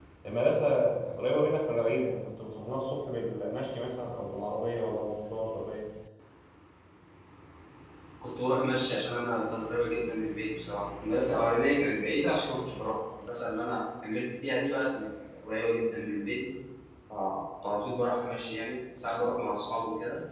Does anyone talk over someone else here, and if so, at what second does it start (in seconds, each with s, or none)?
none